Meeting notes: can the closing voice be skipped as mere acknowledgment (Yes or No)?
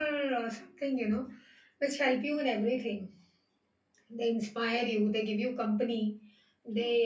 Yes